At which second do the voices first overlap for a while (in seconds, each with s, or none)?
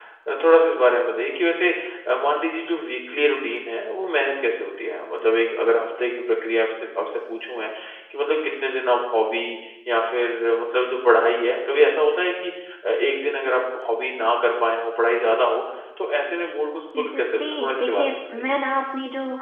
16.9 s